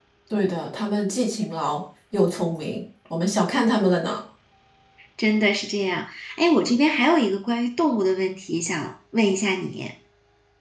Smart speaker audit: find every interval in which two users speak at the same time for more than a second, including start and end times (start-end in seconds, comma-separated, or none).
none